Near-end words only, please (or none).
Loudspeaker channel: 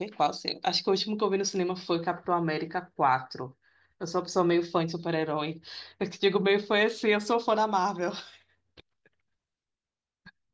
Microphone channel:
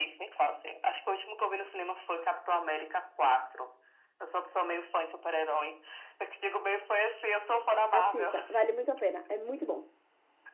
assista, vale muito a pena. É muito bom.